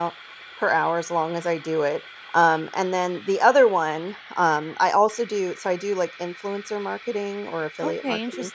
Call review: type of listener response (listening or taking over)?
taking over